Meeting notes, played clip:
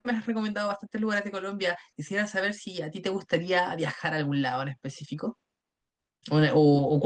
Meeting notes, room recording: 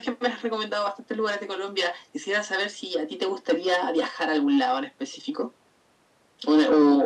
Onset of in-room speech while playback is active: none

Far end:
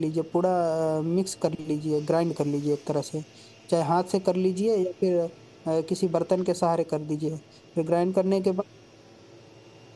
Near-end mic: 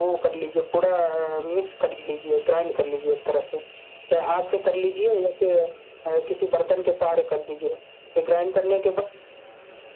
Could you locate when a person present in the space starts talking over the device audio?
none

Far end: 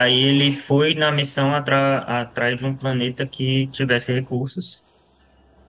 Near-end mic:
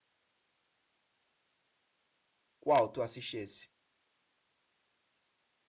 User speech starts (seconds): 2.6 s

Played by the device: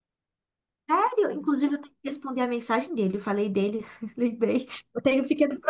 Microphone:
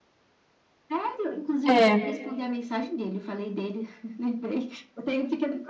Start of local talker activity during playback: 1.7 s

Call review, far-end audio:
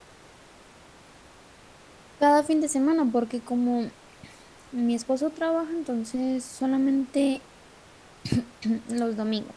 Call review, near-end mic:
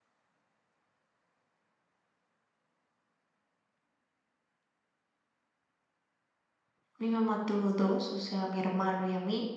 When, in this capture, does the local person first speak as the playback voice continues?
7.0 s

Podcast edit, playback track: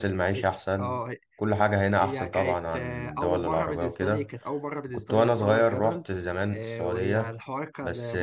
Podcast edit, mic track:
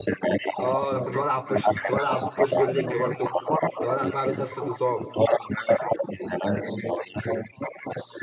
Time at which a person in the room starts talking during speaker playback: 0.6 s

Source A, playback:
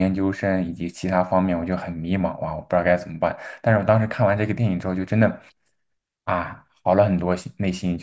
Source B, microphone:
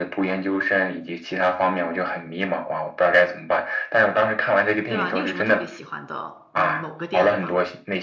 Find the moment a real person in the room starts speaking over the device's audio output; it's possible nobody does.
4.9 s

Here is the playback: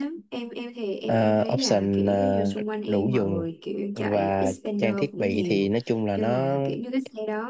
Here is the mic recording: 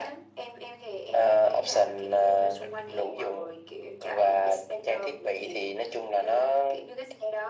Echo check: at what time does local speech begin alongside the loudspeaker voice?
none

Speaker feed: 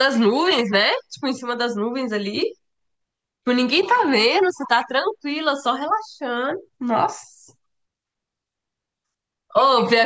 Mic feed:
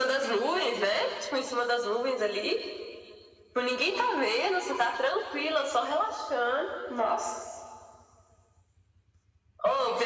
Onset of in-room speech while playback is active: none

